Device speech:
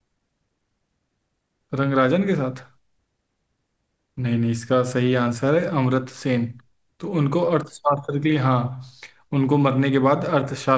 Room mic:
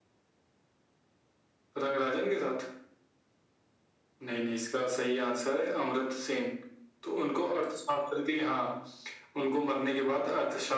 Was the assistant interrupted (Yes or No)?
No